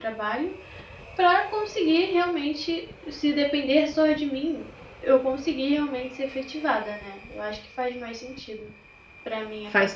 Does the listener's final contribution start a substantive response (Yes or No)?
Yes